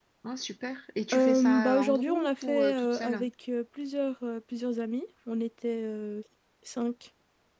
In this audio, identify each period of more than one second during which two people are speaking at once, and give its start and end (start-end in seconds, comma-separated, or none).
1.1-3.3